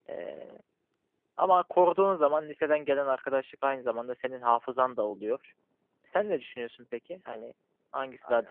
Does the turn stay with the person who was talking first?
No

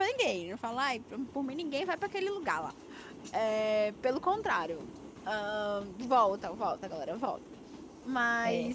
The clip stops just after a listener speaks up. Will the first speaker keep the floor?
Yes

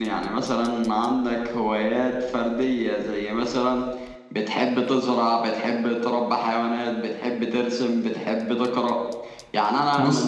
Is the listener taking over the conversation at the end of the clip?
No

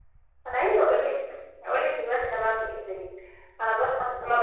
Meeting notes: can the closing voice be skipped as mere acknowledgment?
Yes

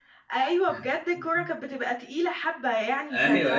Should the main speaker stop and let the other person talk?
No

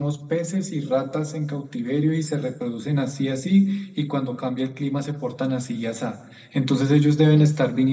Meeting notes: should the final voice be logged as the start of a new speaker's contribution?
No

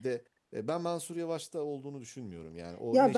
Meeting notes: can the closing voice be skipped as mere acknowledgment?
No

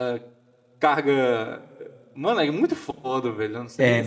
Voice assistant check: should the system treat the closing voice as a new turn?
Yes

